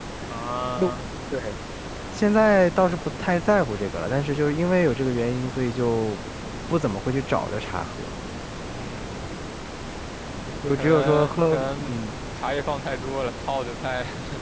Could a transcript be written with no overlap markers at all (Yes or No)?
No